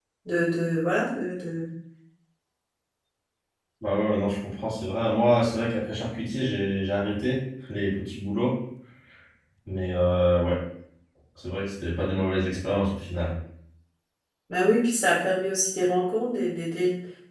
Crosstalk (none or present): none